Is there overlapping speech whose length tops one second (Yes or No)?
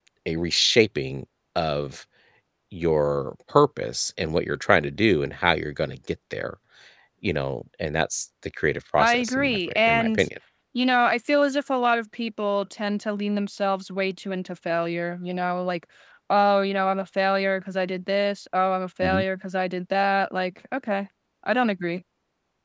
Yes